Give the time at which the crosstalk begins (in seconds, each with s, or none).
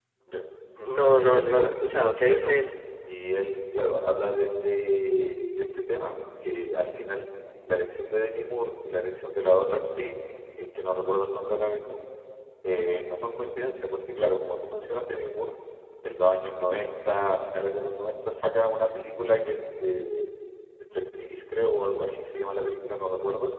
0.9 s